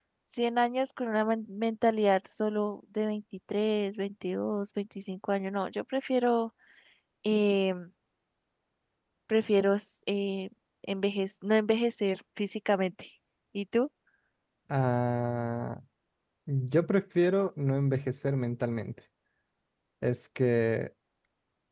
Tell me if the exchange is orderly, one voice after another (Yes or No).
Yes